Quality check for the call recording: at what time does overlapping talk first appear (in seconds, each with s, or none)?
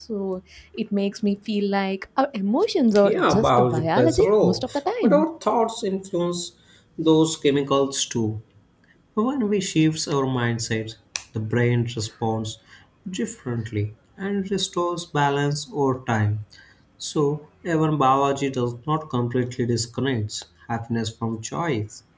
2.9 s